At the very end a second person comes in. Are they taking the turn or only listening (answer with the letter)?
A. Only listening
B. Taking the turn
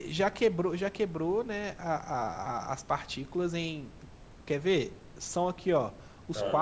A